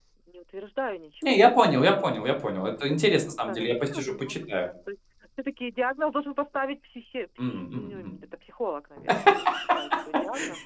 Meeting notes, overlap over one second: present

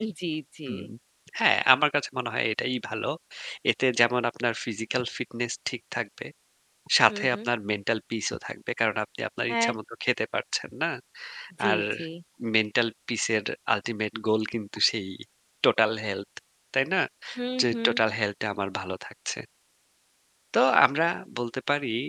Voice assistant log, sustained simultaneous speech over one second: none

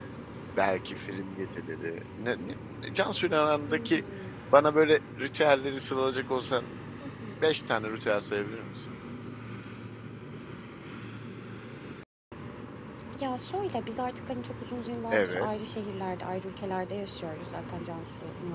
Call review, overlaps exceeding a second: none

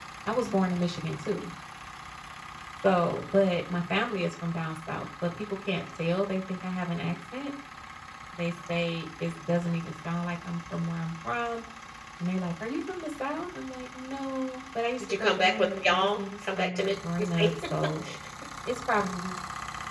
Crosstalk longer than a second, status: present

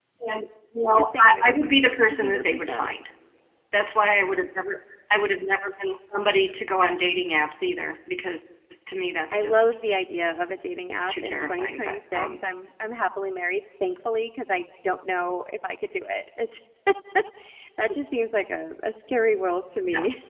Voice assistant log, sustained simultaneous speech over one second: present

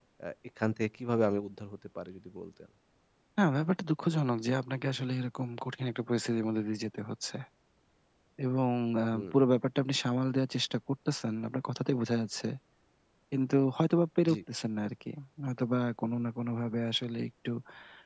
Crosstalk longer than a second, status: none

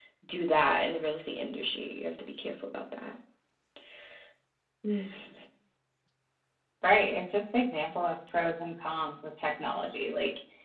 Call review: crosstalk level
none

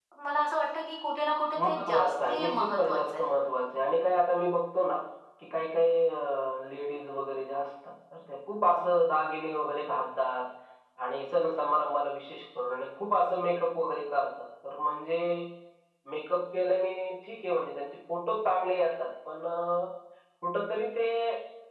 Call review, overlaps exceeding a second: present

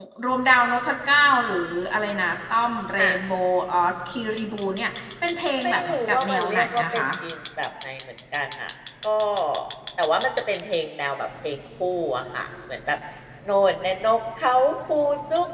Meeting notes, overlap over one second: present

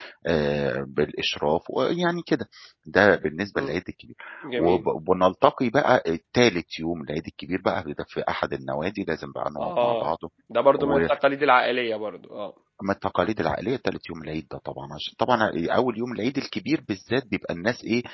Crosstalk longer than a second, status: none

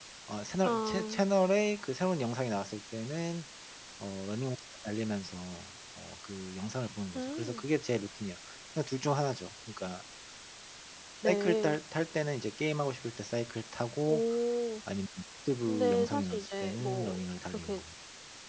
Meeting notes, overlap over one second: present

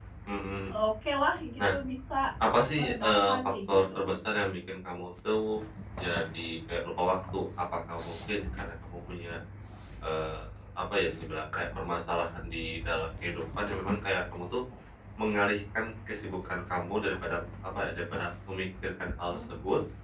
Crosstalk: present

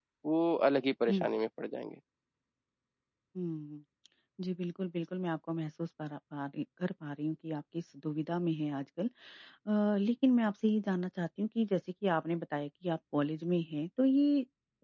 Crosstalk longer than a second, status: none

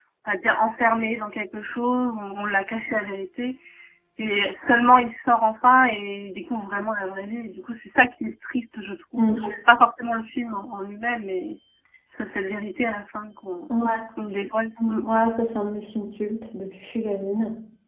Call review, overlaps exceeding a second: none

